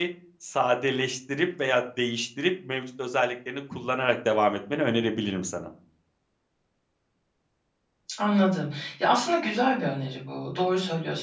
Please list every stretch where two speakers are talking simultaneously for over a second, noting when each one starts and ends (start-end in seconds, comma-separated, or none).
none